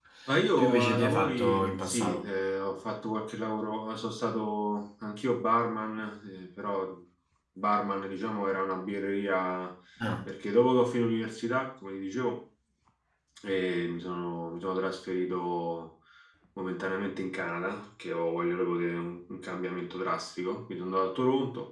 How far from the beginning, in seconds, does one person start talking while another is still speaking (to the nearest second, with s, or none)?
1 s